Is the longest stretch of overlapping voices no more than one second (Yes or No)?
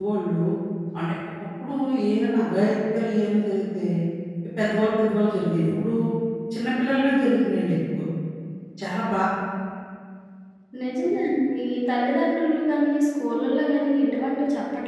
Yes